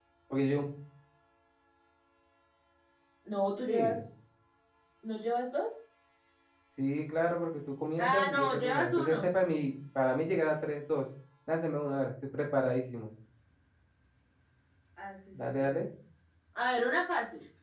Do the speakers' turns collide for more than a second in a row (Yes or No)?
Yes